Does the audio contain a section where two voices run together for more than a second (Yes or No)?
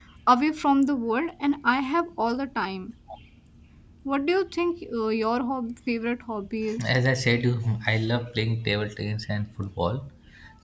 No